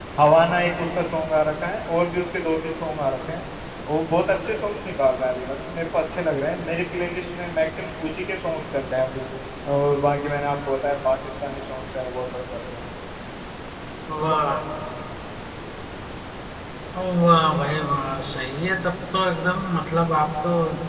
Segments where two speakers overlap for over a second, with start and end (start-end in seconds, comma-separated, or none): none